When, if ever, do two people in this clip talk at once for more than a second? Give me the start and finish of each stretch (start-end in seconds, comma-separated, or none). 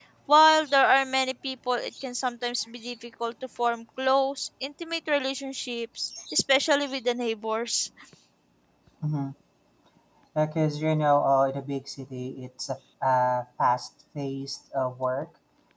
none